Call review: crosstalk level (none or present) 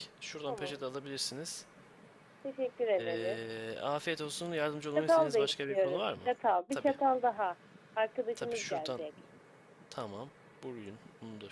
present